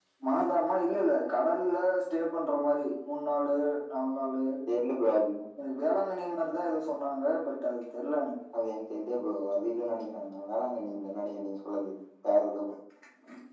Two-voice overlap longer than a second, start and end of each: none

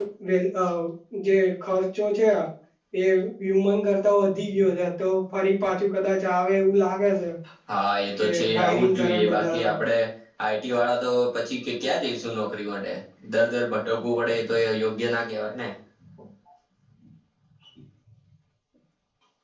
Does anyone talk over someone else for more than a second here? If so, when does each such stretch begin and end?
8.2-9.8

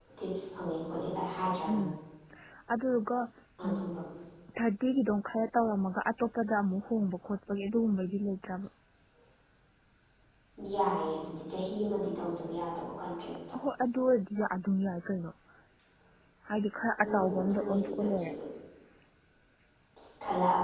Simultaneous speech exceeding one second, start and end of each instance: 17.0-18.3

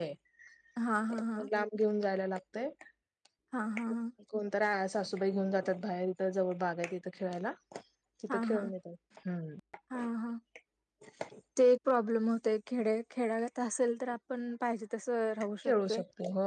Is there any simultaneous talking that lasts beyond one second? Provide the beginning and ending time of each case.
none

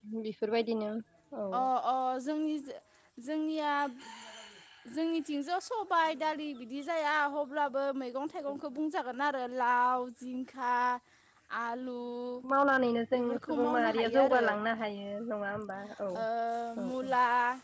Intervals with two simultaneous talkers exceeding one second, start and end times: 13.1-14.4

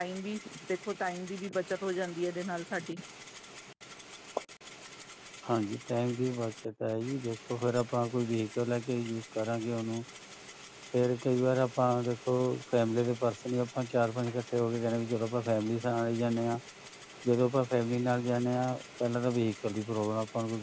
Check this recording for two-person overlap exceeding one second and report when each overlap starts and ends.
none

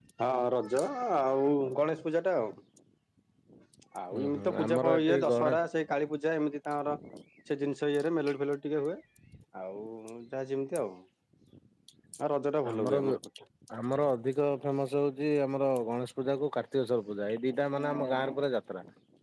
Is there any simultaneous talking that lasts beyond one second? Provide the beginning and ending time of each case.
4.1-5.5

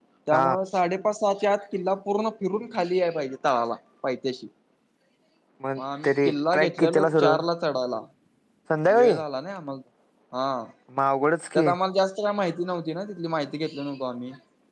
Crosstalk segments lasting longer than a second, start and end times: 6.0-7.3

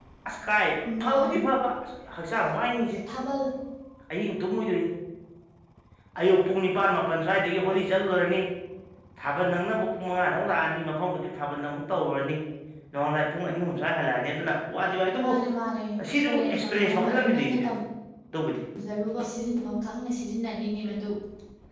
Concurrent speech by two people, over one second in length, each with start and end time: 16.0-17.6

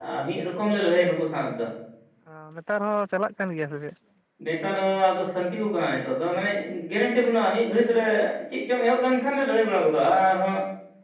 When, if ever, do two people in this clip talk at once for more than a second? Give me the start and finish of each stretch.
none

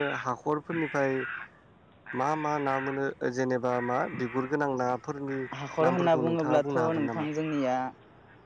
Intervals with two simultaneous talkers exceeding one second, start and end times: 5.9-7.3

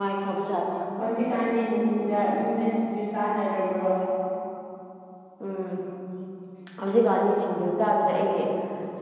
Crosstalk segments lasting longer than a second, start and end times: none

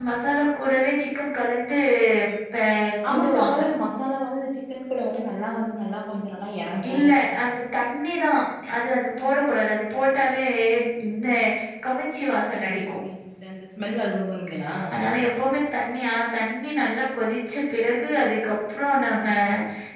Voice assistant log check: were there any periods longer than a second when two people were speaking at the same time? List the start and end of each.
none

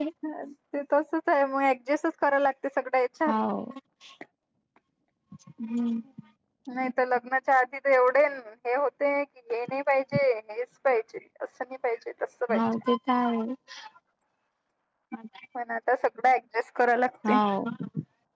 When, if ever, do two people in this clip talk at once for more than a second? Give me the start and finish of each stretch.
none

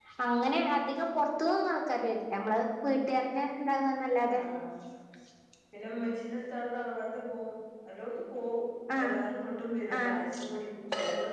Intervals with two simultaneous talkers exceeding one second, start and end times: none

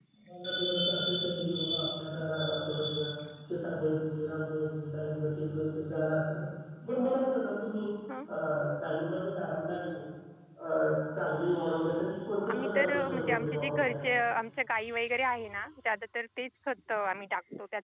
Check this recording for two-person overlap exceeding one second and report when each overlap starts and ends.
12.5-14.0

